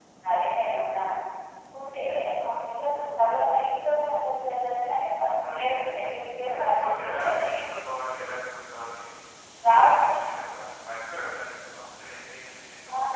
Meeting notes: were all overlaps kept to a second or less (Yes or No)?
No